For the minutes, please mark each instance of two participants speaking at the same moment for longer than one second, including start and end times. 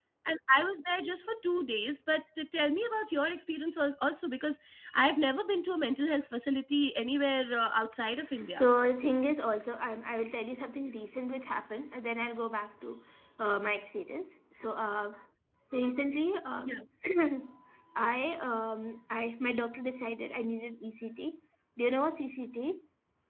none

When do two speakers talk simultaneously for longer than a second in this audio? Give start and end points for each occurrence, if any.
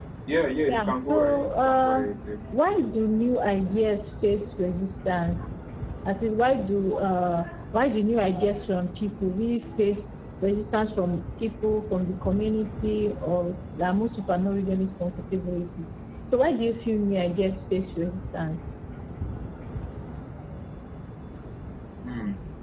0.7-2.1

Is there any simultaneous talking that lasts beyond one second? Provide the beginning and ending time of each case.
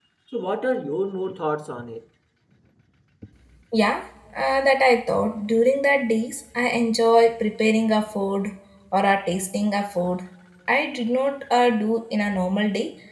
none

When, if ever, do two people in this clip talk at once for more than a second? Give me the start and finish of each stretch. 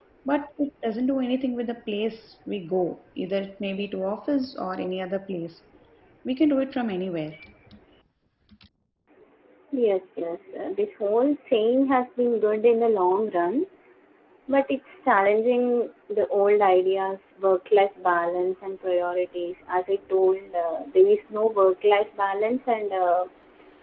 none

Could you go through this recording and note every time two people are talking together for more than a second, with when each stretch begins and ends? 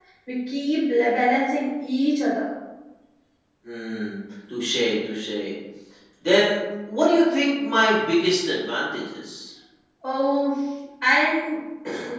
none

